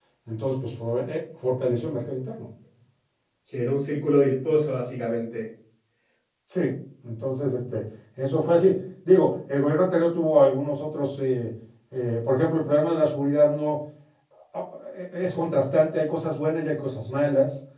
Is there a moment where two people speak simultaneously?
No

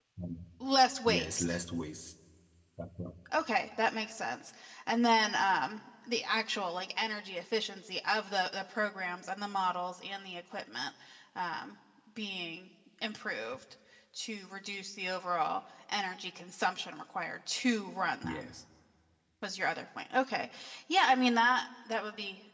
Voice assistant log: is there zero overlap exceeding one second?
Yes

